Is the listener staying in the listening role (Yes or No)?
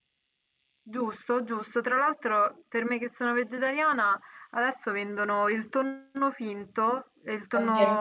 Yes